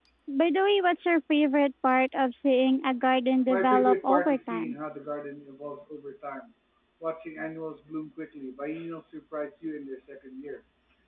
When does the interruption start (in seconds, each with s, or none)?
3.5 s